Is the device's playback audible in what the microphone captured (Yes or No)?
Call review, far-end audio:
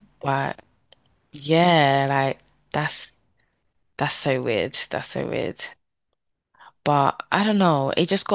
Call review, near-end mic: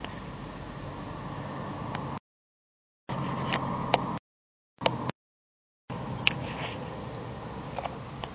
No